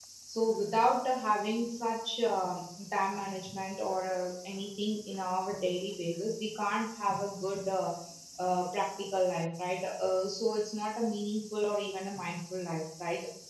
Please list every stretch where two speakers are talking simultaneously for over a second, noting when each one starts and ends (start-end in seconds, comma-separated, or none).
none